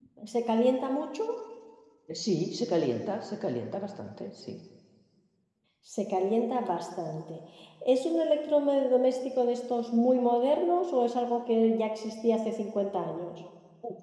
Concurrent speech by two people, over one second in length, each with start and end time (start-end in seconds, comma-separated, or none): none